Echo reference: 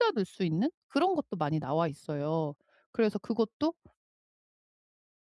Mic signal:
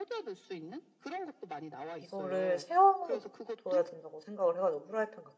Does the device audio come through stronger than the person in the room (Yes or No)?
No